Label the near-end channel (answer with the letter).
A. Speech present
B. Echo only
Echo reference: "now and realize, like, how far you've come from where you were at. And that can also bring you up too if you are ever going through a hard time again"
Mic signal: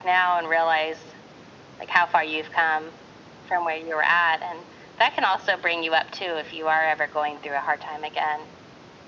B